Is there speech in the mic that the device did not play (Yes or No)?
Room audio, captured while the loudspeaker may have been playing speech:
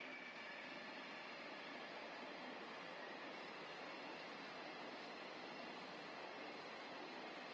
No